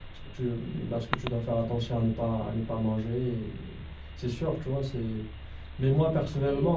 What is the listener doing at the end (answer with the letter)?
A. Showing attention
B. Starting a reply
A